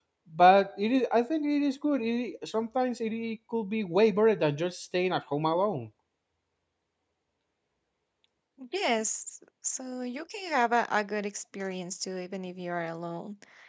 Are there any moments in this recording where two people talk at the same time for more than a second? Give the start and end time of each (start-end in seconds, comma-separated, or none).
none